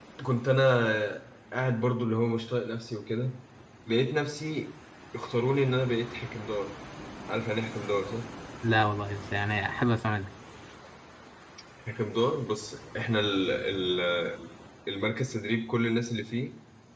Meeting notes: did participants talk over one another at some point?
No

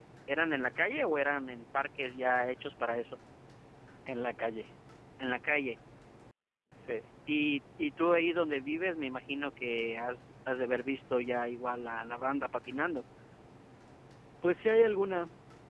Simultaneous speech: No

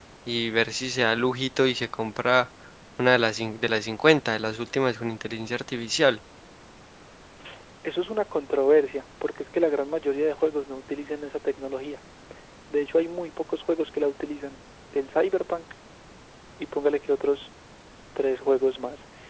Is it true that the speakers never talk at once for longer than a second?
Yes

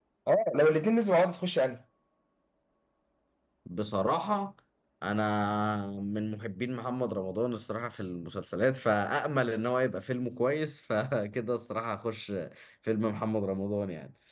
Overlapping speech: No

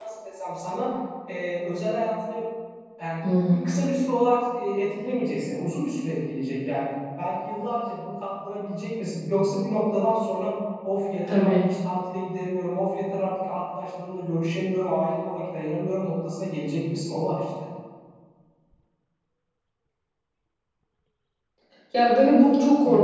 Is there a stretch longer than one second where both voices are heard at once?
No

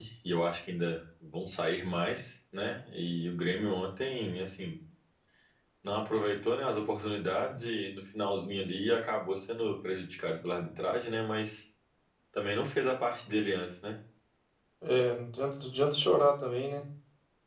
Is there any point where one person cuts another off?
No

